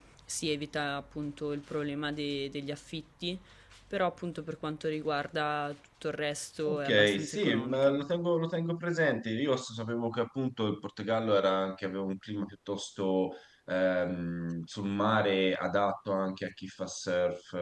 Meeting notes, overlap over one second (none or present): present